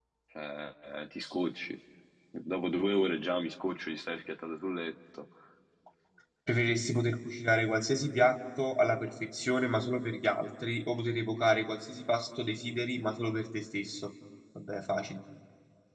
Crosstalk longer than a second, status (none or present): none